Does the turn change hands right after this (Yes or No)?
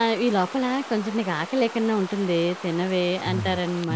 Yes